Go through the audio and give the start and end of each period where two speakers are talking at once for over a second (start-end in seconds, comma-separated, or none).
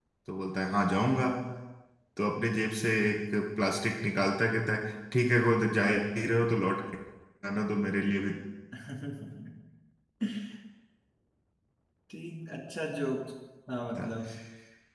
none